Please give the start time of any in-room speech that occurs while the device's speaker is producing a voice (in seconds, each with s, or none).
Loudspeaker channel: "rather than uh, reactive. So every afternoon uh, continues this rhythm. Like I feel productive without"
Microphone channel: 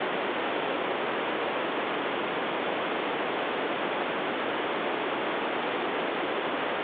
none